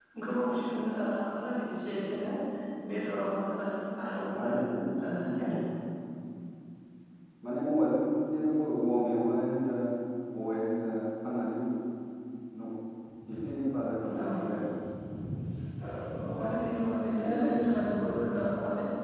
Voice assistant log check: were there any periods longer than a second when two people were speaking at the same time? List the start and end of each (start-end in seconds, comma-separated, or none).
4.2-5.6